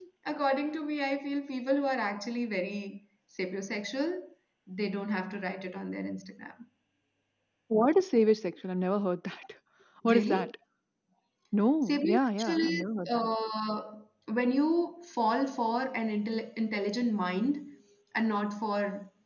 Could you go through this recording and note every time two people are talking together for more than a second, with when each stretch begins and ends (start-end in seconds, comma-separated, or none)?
11.9-13.3